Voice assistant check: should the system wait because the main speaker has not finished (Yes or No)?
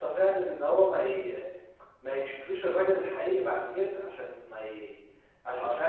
Yes